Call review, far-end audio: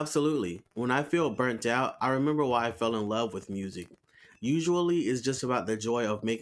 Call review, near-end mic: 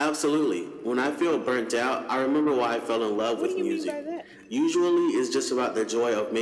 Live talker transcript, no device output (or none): What do you mean by that?